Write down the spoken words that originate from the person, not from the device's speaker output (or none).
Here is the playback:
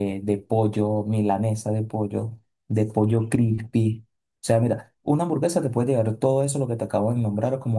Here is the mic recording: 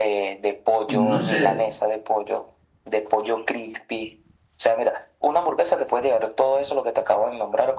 no sé,